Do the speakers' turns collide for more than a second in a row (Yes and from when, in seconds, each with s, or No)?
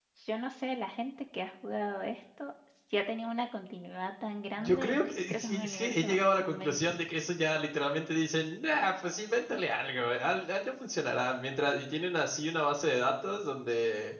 Yes, from 4.6 s